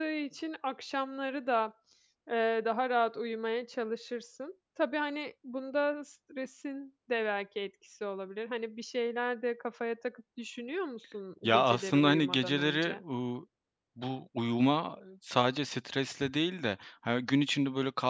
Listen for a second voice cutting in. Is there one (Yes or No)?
Yes